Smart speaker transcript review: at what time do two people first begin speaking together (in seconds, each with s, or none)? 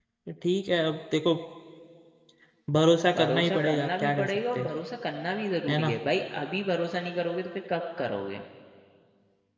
3.2 s